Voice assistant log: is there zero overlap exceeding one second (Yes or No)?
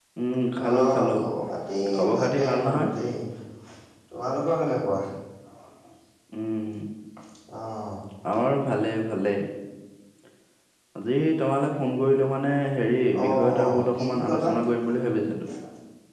No